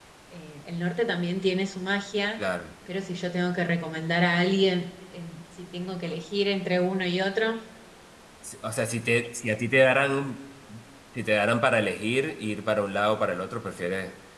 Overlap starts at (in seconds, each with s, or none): none